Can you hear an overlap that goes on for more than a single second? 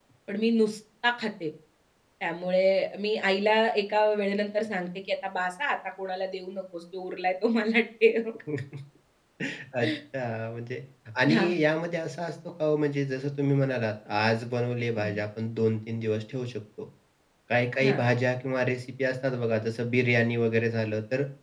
No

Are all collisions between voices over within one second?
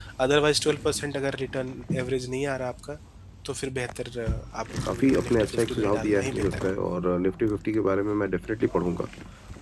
No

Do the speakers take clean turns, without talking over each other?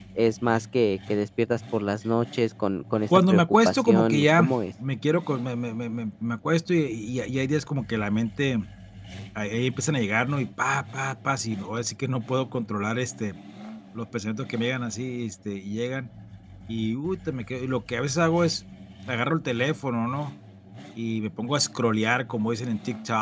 No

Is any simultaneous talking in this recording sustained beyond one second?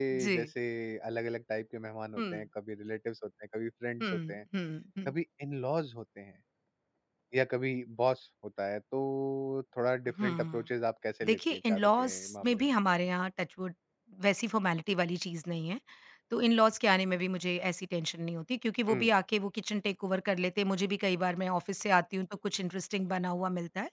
Yes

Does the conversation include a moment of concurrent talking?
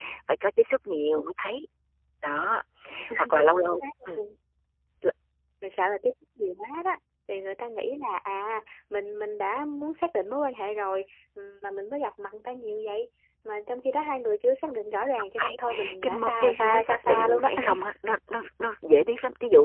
Yes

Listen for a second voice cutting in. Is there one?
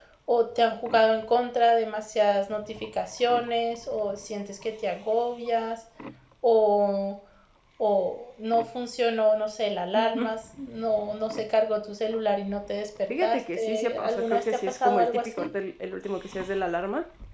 Yes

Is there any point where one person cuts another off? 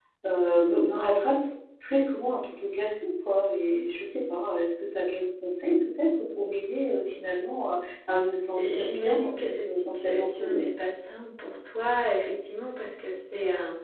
Yes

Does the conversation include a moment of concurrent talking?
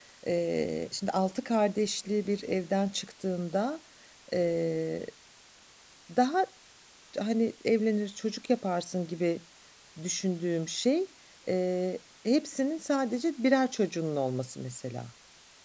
No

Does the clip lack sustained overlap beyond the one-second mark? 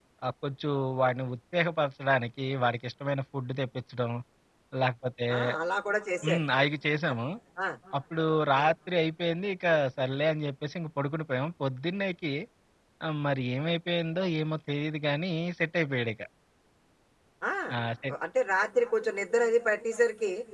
Yes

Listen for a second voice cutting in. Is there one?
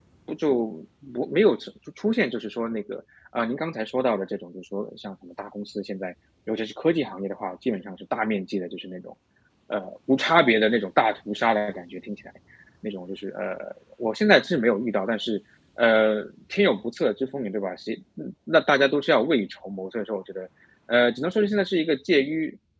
No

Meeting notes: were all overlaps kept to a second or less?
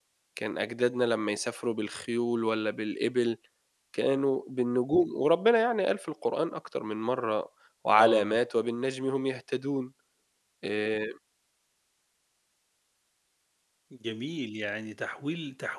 Yes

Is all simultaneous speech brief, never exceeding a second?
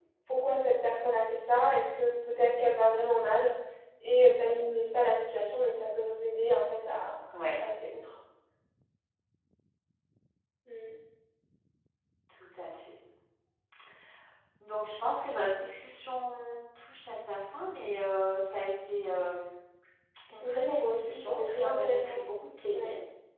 No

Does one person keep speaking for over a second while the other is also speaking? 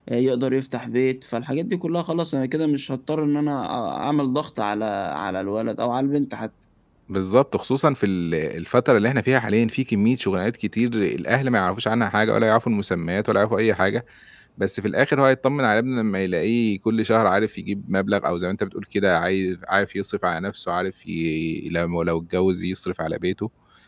No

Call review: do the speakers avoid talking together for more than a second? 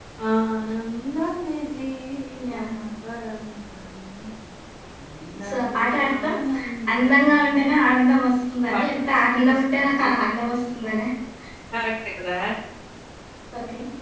No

